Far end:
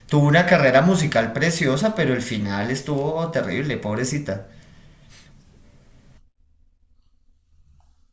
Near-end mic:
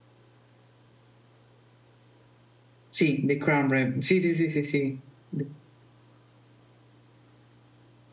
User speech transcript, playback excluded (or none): Sí, The Crown Rem. Sí, sí, sí, sí, sí. De-